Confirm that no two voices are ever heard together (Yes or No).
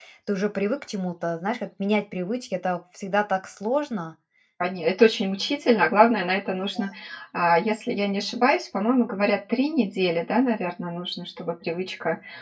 Yes